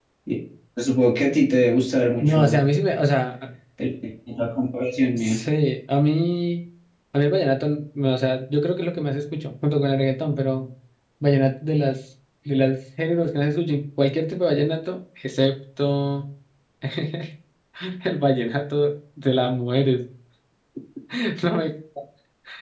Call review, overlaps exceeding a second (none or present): none